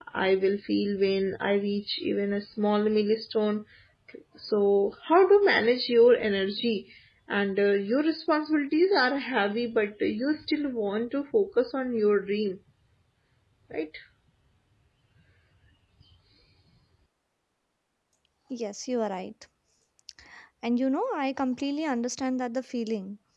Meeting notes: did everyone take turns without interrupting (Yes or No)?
Yes